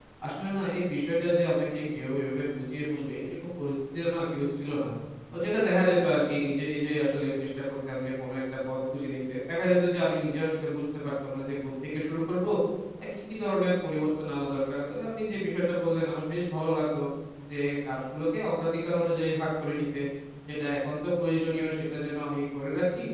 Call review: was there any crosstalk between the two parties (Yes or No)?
No